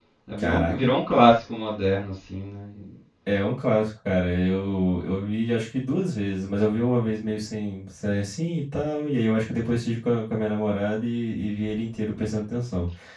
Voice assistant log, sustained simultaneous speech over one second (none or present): none